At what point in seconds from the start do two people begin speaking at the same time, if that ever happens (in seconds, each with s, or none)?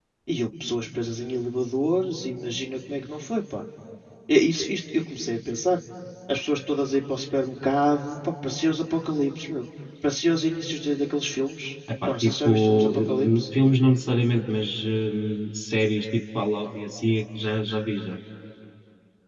12.0 s